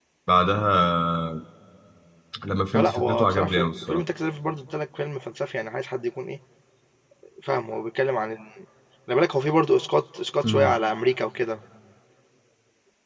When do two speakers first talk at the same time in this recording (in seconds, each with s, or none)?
2.7 s